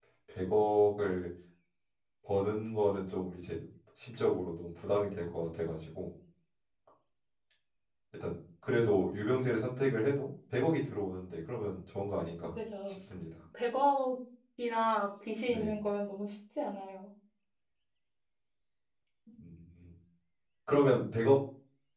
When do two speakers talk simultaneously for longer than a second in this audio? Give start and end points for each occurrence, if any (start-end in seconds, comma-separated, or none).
none